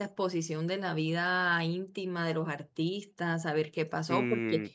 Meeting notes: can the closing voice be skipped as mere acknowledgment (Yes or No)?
Yes